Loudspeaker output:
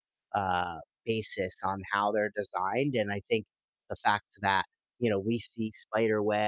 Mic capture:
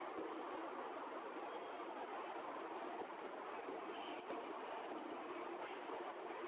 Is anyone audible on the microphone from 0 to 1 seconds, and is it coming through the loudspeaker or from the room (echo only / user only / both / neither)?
neither